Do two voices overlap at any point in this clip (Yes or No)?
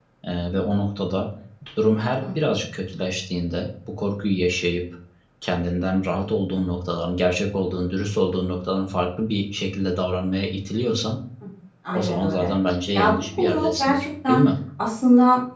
Yes